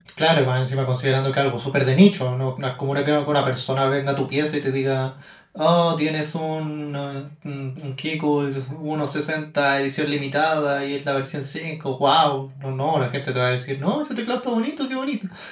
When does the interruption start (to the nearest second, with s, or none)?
none